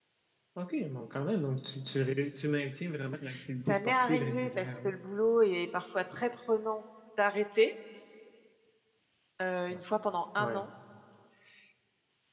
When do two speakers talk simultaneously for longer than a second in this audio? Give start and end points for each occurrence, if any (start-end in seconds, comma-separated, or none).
3.6-4.9